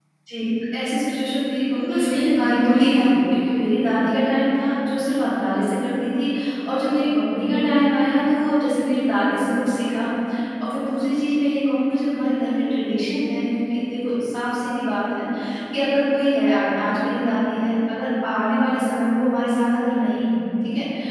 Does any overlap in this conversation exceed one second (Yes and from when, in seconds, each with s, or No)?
Yes, from 1.7 s